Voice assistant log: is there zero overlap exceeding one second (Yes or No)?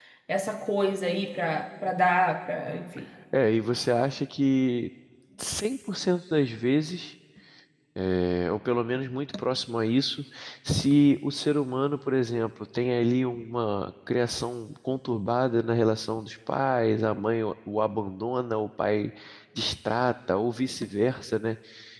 Yes